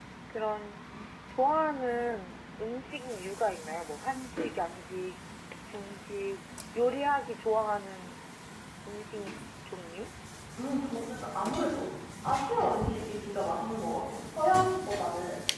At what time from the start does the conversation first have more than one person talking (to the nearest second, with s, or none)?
none